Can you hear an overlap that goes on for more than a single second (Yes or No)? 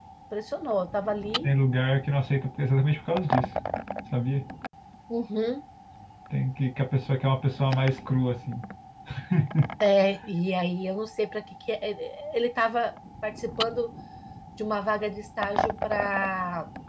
No